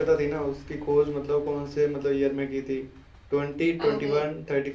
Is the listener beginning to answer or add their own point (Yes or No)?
No